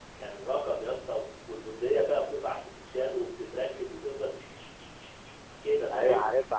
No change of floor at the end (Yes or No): No